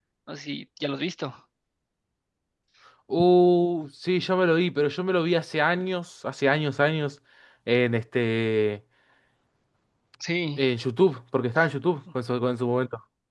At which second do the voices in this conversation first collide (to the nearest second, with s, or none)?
none